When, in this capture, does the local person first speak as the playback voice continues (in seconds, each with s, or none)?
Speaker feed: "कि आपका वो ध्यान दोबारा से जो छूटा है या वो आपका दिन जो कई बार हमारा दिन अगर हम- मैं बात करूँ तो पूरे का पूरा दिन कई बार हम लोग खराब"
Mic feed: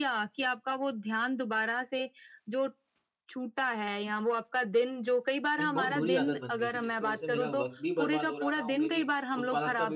5.6 s